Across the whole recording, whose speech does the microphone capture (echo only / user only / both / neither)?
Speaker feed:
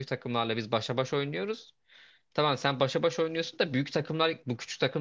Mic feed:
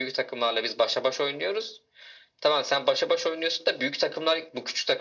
echo only